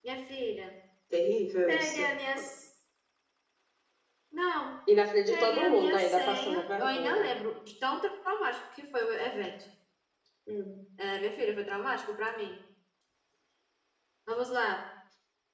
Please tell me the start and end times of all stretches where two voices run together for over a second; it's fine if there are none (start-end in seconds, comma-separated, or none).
5.3-7.3